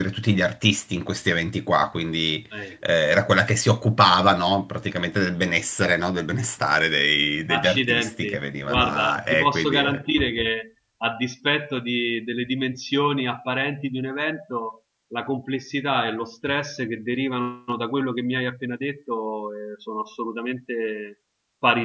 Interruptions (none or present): present